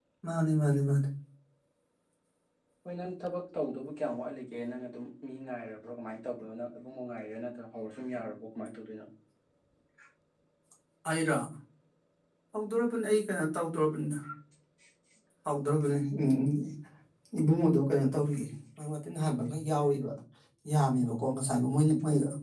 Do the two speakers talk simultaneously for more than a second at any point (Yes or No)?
No